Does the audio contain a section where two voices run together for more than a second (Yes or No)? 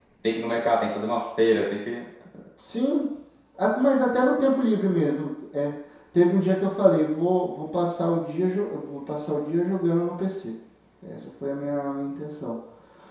No